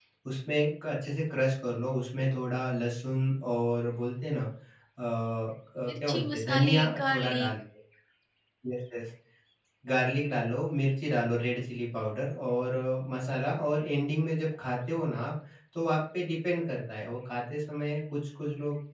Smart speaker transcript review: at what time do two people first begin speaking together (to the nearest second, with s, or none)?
6 s